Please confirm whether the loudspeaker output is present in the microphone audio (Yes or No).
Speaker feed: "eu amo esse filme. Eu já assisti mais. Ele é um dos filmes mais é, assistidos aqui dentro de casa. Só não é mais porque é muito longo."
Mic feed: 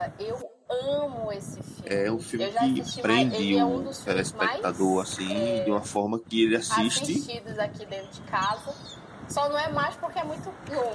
Yes